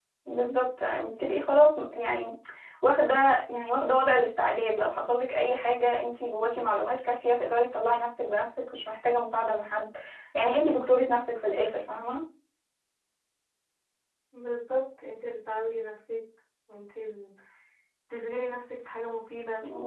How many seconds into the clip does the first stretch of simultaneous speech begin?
none

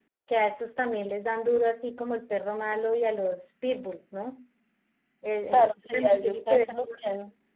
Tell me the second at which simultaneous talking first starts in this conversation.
6 s

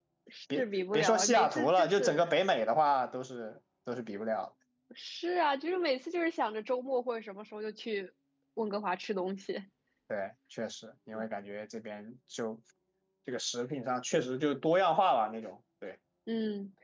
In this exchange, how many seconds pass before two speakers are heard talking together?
1 s

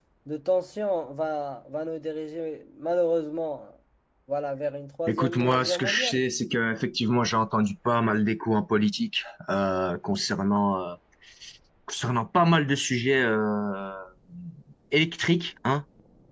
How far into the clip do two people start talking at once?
5 s

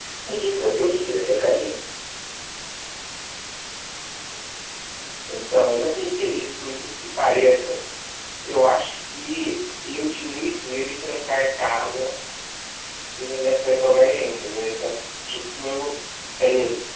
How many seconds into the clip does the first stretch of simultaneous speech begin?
none

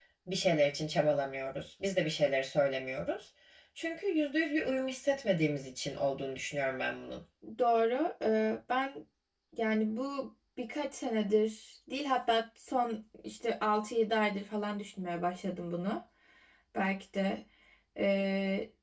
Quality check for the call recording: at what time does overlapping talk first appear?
none

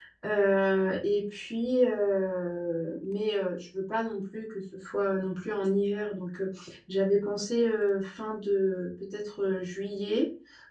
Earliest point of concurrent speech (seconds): none

